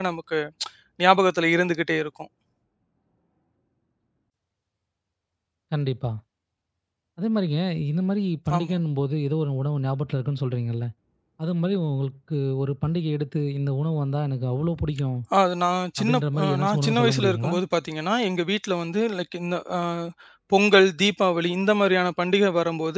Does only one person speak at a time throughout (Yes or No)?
No